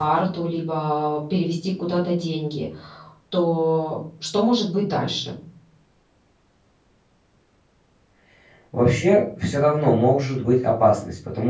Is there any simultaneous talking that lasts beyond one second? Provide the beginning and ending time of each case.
none

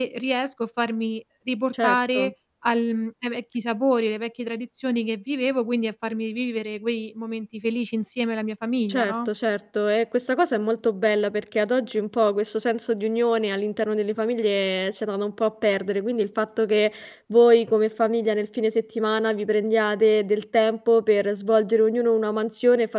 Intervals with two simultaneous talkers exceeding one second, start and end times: none

